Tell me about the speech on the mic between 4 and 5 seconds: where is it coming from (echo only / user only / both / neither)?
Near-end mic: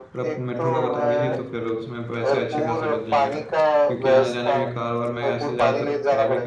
both